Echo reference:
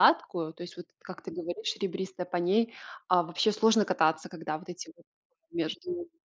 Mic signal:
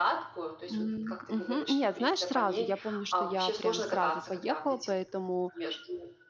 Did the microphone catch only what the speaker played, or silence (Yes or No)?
No